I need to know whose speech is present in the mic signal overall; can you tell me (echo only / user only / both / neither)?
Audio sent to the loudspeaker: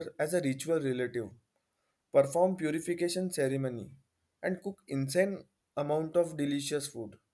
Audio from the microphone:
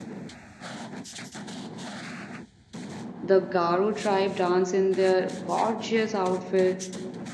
user only